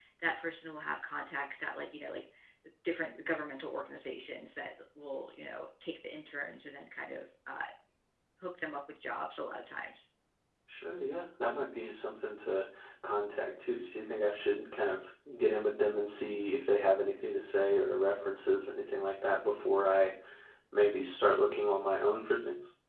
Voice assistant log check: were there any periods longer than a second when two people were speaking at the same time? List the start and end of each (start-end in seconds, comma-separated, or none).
none